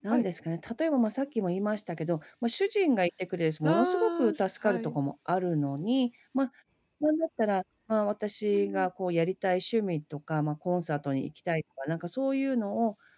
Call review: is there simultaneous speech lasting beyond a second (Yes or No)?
Yes